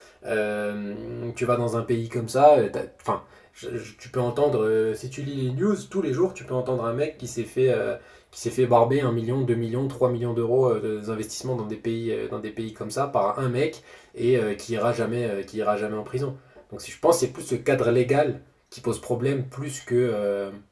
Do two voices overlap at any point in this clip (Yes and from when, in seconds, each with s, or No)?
No